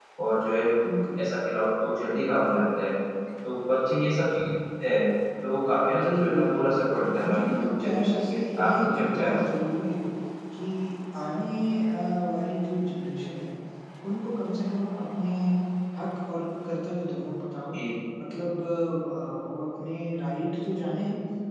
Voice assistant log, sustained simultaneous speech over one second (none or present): present